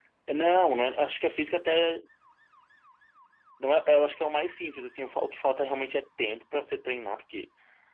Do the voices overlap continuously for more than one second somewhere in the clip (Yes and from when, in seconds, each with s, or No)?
No